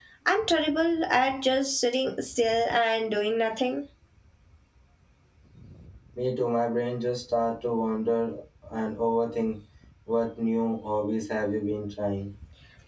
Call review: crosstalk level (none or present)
none